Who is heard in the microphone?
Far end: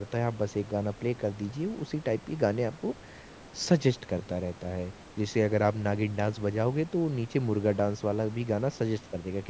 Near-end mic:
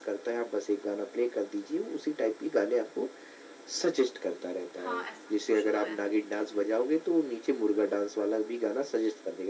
both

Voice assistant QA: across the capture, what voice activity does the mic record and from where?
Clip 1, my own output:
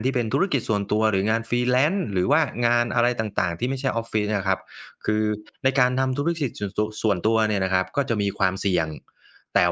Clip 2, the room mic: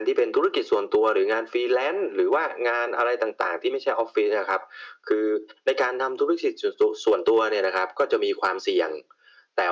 echo only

